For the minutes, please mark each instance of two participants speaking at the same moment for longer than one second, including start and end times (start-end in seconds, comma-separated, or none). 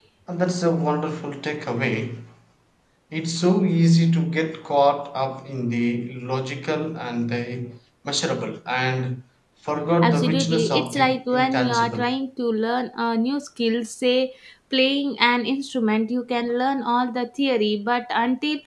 10.0-12.1